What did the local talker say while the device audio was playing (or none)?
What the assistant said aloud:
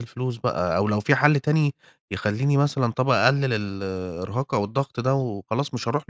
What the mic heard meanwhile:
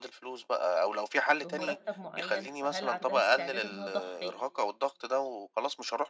بمرتّب معيّن، فهل عندها استعداد إن أنا اضحّي